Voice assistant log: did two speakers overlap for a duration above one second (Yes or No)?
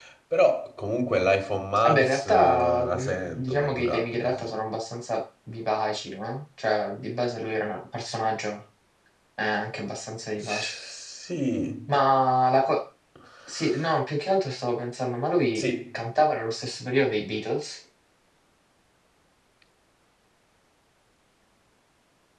Yes